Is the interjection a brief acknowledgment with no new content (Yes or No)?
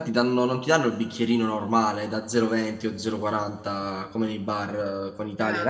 Yes